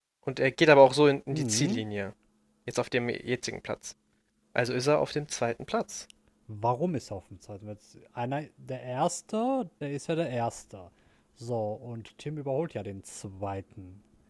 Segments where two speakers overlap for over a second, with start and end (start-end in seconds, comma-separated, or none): none